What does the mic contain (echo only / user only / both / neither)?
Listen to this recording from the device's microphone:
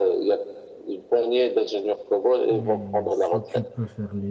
both